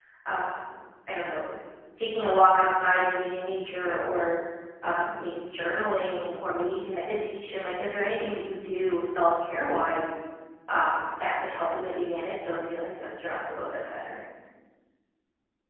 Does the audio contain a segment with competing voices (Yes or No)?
No